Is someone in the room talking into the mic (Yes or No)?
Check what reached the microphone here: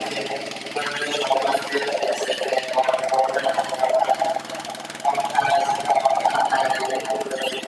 No